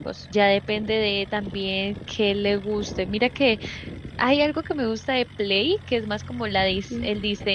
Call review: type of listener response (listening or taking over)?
listening